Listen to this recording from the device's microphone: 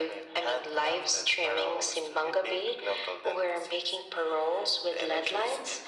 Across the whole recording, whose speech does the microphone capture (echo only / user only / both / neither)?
echo only